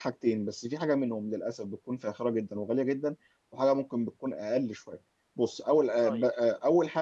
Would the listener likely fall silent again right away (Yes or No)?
Yes